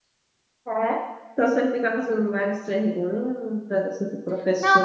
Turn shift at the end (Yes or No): Yes